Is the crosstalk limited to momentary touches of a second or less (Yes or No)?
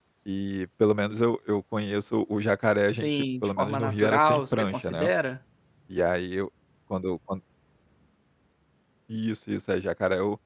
No